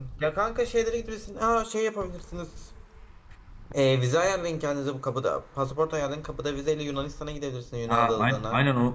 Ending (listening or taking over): taking over